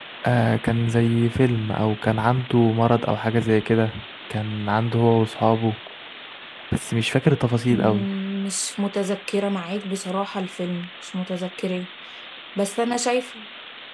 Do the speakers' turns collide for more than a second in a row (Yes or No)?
No